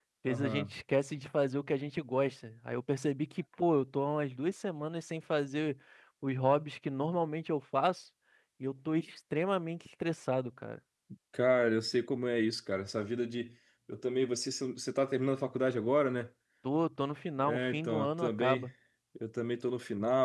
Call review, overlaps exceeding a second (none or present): present